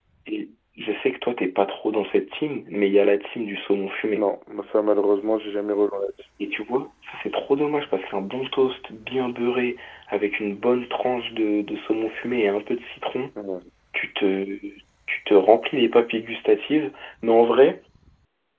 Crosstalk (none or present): none